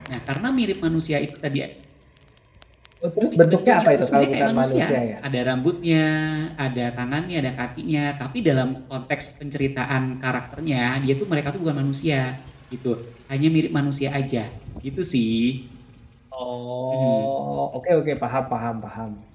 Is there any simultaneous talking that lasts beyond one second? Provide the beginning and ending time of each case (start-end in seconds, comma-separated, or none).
3.5-5.0